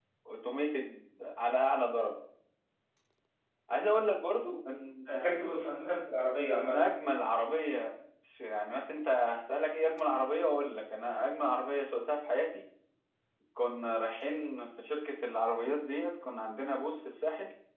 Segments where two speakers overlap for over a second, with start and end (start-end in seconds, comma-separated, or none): none